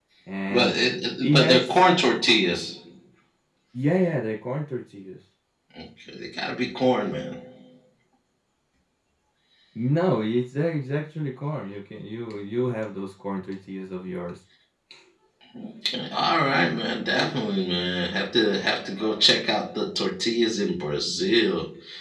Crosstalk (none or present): present